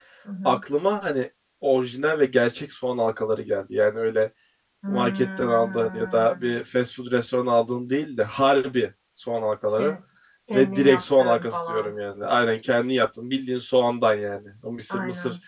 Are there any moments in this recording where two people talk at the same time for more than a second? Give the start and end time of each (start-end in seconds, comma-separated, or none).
4.9-6.6, 10.5-11.9